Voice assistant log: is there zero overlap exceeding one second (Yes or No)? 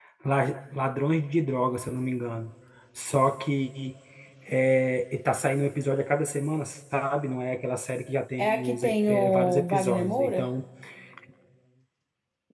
No